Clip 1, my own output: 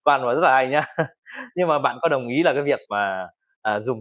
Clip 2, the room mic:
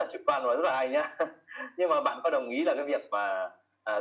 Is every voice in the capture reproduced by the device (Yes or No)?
Yes